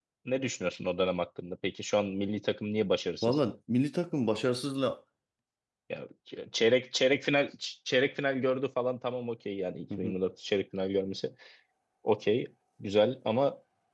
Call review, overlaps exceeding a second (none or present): none